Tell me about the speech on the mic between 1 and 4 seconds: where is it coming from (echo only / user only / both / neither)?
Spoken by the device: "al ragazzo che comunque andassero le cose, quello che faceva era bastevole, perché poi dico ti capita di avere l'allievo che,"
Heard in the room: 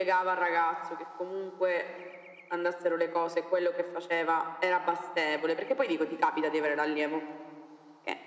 echo only